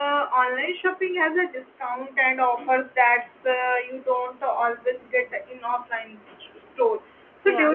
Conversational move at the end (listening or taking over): listening